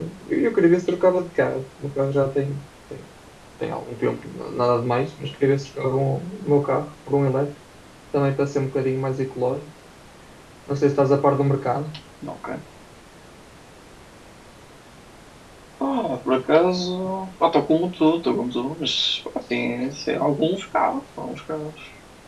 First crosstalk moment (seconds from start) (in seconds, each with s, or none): none